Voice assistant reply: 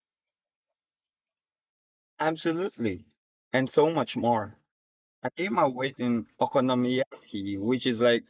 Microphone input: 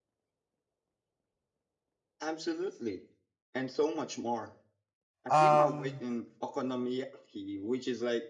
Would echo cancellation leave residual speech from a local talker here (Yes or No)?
Yes